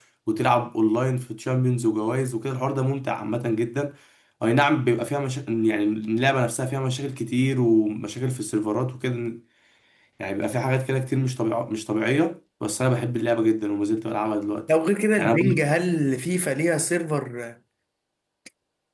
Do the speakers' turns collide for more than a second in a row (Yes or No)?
No